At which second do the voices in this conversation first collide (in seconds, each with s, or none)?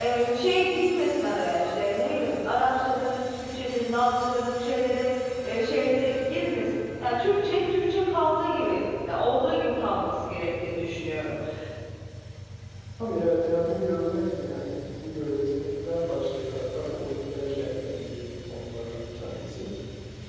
none